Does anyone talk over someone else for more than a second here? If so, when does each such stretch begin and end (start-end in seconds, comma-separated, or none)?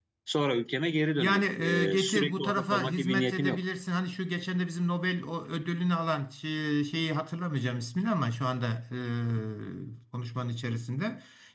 1.2-3.6